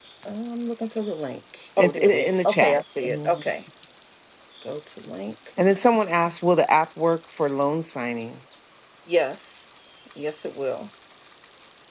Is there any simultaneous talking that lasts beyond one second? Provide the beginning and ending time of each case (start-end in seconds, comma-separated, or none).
1.8-3.3